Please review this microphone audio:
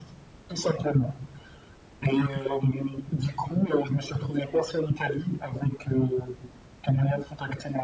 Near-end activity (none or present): none